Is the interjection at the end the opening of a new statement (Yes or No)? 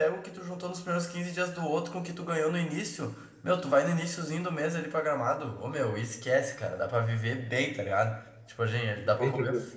No